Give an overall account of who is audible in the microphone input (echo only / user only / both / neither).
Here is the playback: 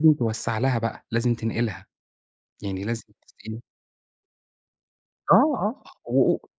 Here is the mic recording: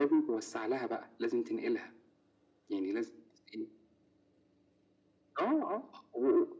echo only